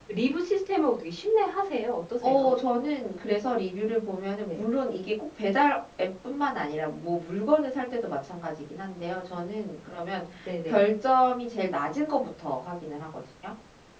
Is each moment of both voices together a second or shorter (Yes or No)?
Yes